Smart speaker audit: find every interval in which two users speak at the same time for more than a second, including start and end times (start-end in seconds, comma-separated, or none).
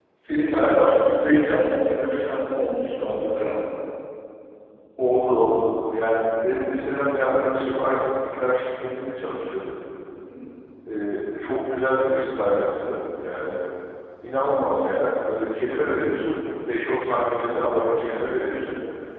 none